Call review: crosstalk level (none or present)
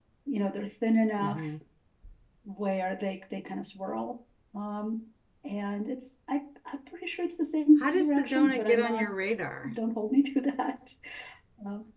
present